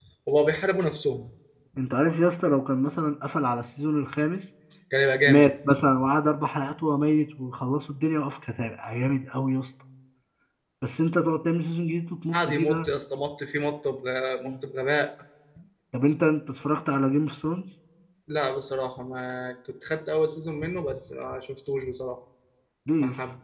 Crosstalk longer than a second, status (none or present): none